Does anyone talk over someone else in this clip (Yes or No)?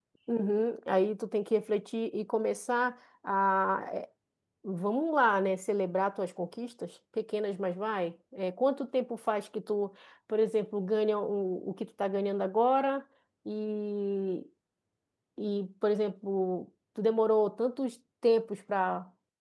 No